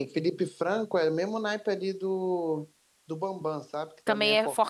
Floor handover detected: Yes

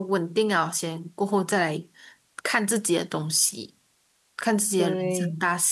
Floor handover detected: No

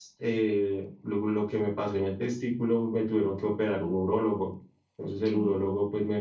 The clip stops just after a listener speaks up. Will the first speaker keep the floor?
Yes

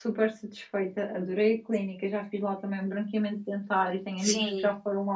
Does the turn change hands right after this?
No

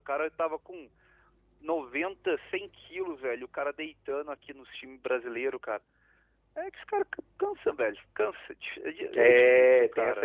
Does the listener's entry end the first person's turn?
Yes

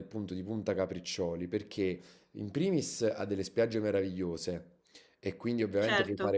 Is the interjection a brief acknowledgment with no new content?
Yes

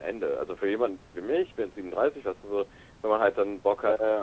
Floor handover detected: No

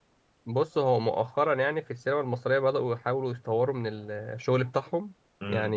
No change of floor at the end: Yes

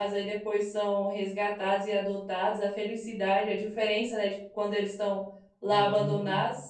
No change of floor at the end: Yes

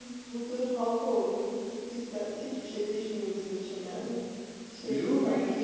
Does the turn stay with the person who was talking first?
No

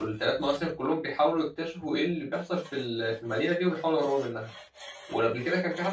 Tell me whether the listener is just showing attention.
Yes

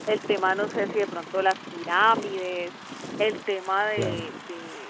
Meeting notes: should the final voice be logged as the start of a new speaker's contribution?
No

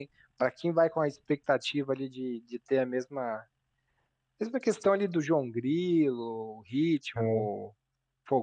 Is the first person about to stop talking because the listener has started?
No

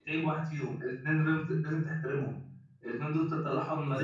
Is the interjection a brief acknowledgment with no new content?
Yes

